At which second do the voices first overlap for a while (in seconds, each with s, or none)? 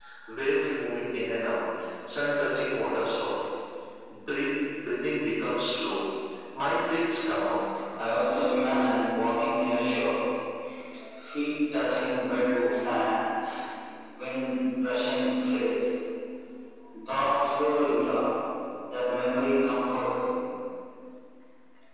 none